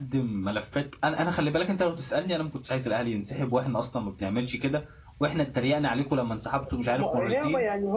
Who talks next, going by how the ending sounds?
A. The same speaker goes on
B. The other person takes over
B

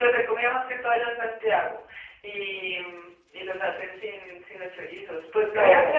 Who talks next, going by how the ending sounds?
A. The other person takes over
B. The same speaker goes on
B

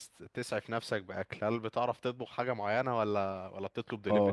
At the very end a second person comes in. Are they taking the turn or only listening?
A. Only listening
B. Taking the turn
B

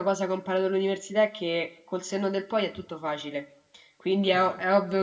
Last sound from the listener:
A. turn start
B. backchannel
B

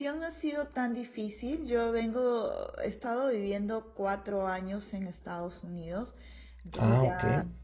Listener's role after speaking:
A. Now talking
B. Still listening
B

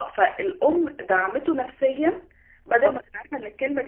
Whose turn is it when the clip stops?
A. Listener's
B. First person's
B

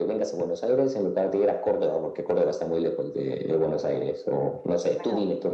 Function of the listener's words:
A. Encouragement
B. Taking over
B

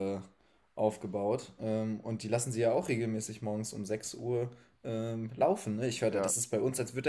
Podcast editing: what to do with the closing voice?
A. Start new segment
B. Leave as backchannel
B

